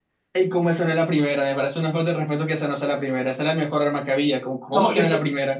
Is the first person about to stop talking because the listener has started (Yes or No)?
Yes